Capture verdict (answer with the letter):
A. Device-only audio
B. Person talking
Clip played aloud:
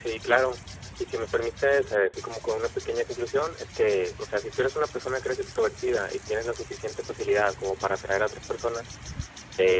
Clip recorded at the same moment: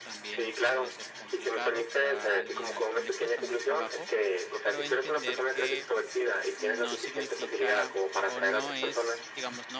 B